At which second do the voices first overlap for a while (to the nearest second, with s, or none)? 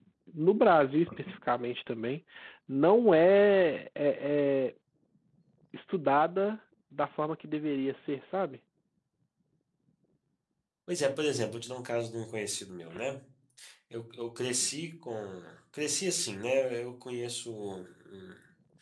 none